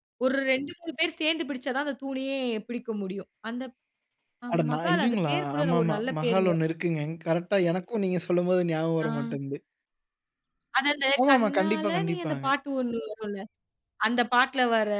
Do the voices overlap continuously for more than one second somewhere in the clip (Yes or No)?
Yes